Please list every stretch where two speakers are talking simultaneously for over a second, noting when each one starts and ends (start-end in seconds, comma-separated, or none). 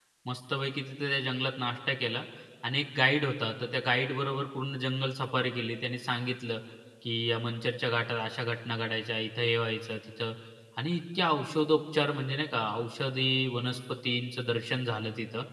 none